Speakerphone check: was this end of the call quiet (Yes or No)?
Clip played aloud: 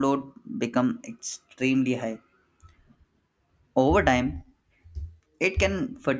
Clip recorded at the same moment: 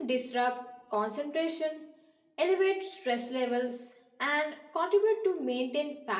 No